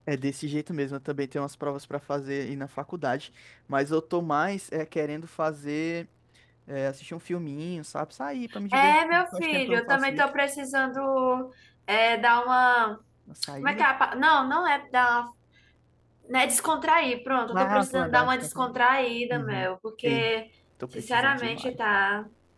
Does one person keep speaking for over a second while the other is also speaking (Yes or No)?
Yes